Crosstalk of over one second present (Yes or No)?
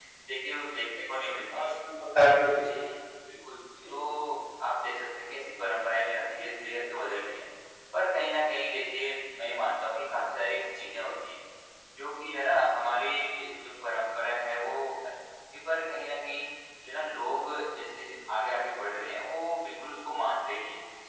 No